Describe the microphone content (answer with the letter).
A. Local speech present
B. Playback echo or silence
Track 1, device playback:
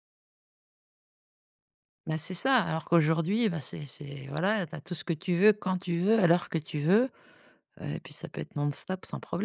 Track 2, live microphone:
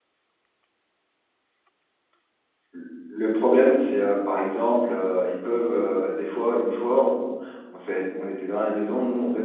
A